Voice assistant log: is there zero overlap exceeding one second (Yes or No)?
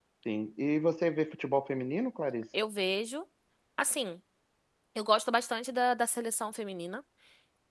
Yes